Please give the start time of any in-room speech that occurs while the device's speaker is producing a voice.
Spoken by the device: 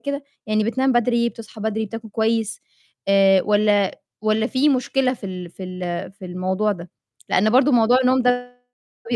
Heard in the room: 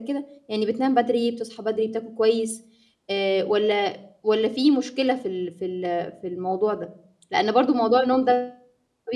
none

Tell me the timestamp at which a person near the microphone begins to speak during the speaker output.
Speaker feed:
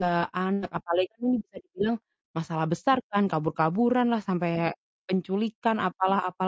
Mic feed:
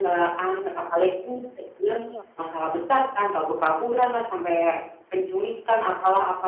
2.0 s

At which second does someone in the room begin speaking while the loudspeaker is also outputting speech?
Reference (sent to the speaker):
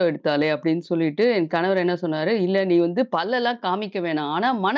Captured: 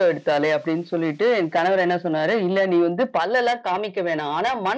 none

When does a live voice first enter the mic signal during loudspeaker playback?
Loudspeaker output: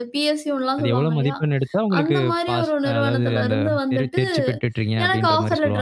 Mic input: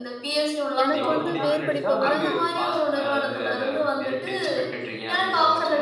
0.8 s

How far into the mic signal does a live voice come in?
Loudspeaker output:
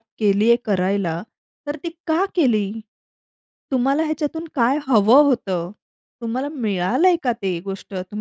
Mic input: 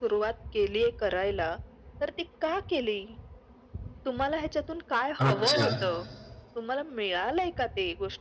5.2 s

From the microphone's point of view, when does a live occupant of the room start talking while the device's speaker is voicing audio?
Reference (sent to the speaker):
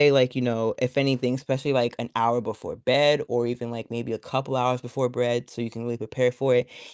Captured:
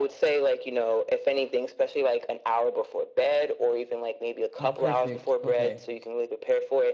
4.6 s

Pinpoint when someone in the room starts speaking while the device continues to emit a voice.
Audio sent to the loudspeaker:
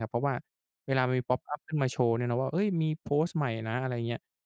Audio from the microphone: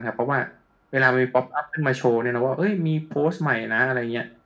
none

